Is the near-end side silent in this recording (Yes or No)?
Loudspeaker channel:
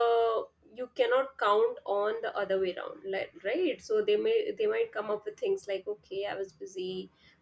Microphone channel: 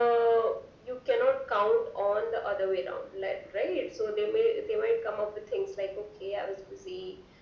Yes